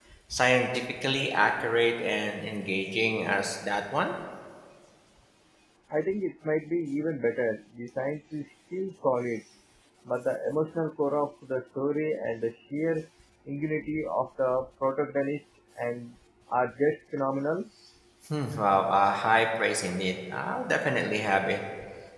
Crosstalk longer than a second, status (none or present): none